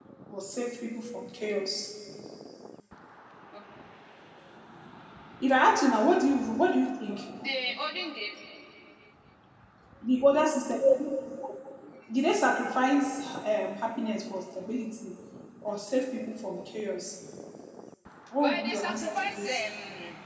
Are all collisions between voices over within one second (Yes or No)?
No